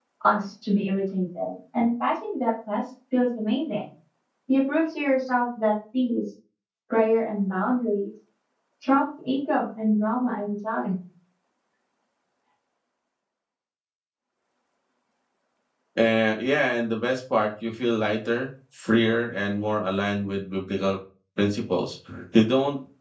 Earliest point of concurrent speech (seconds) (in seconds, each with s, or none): none